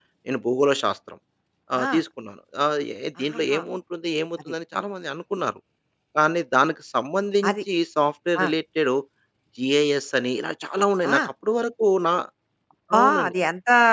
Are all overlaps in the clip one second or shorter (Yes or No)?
Yes